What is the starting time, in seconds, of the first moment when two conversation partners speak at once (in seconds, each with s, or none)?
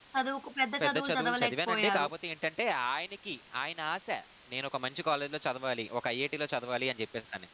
0.8 s